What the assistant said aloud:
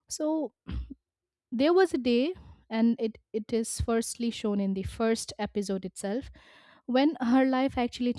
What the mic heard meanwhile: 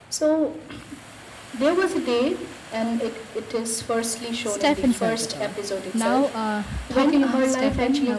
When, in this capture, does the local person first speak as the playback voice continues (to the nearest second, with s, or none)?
4 s